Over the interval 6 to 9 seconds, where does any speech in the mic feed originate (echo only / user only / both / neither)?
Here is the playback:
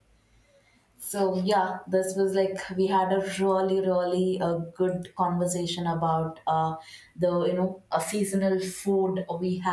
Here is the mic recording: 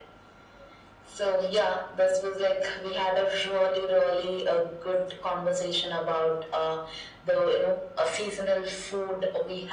echo only